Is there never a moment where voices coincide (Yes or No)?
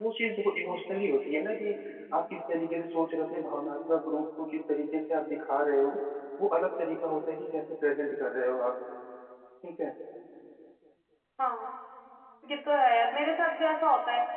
Yes